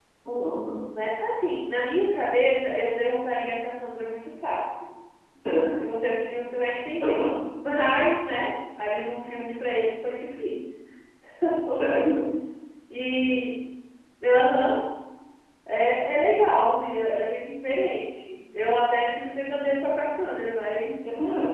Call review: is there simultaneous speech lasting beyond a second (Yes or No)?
No